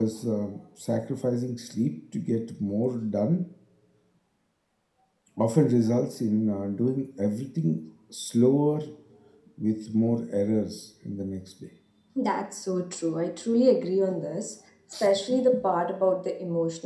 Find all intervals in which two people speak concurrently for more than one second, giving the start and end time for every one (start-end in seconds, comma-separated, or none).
none